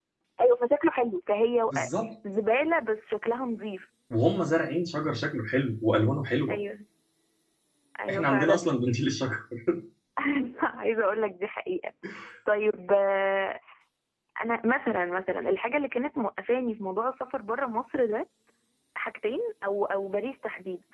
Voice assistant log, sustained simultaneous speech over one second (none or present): none